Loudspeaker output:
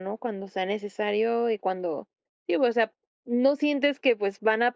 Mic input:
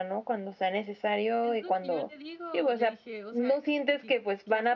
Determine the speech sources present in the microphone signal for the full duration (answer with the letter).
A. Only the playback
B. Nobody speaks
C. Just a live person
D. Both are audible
D